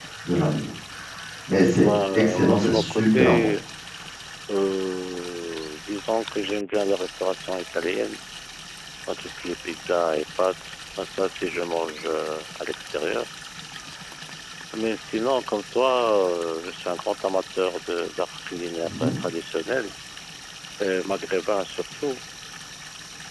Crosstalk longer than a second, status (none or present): present